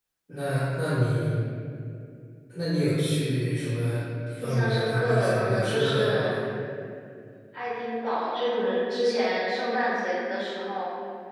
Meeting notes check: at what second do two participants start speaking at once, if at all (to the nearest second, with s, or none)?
4 s